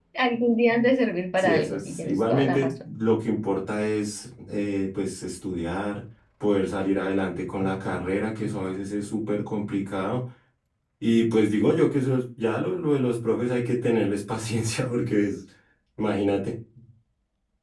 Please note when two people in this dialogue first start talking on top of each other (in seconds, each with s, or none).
1.4 s